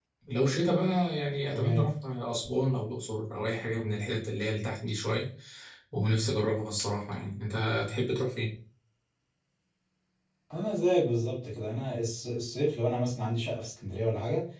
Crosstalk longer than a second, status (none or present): none